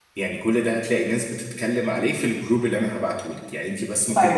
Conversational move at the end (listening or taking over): taking over